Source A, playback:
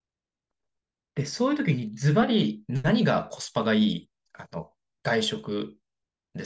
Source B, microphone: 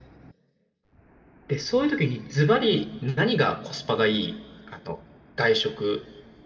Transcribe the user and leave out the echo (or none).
none